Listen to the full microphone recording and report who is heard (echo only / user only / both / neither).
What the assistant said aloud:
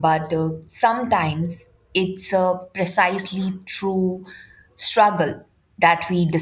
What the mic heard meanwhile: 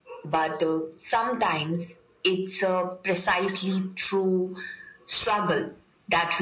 echo only